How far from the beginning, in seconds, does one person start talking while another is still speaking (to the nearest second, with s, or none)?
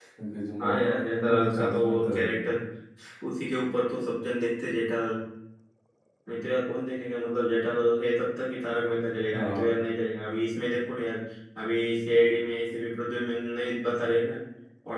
1 s